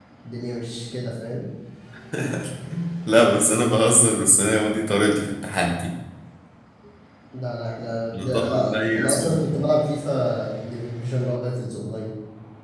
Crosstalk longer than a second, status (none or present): present